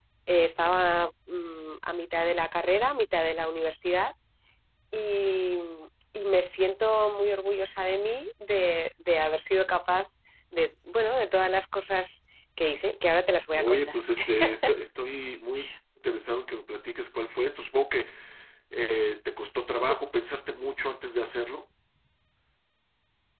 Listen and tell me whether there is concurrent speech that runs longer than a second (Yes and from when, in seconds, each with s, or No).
No